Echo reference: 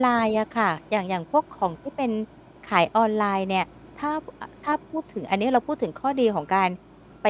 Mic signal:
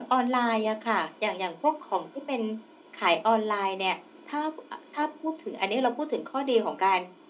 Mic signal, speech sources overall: echo only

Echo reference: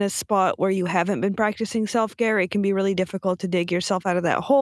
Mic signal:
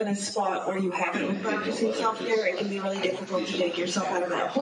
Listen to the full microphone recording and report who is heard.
both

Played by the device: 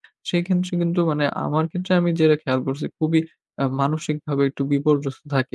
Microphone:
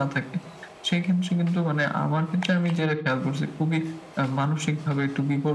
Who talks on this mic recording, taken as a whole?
echo only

